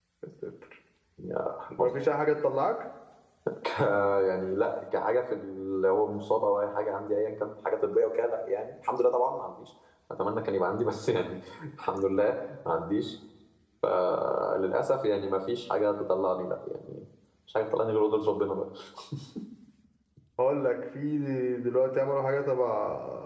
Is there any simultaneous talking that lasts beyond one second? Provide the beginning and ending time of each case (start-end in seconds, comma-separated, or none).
none